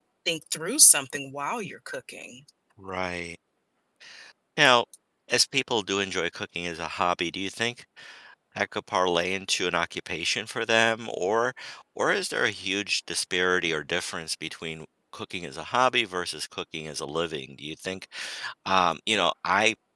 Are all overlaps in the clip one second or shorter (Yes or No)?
Yes